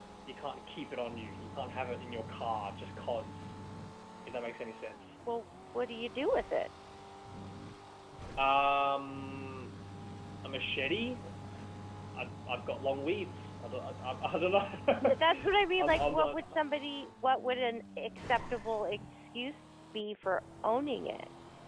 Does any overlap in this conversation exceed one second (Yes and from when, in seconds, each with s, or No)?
Yes, from 15.0 s